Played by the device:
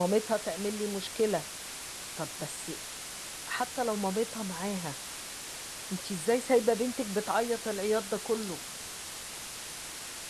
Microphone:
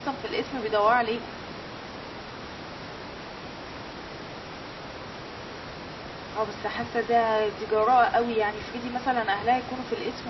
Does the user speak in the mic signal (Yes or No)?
Yes